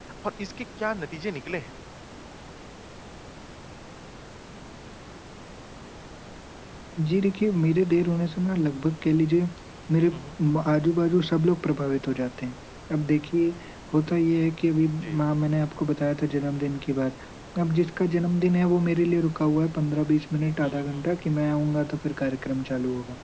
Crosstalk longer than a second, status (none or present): none